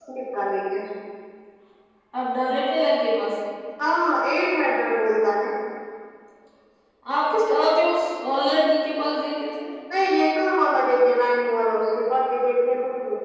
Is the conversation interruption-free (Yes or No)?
Yes